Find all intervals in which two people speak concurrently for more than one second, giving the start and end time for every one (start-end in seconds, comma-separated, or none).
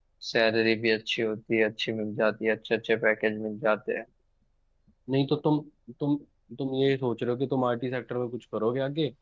none